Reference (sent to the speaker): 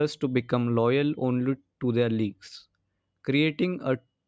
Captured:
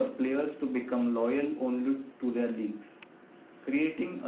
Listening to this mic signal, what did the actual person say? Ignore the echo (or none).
none